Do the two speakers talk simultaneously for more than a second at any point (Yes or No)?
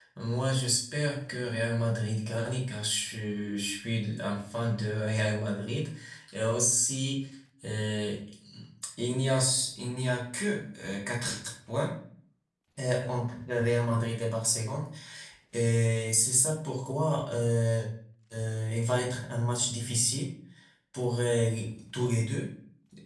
No